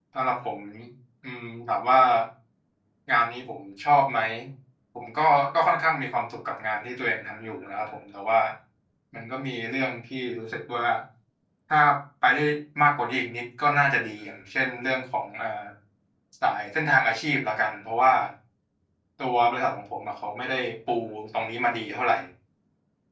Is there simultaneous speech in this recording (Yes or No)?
No